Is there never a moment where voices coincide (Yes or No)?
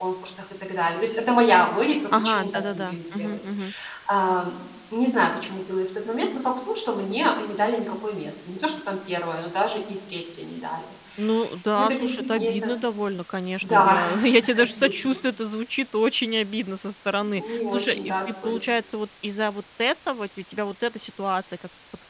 No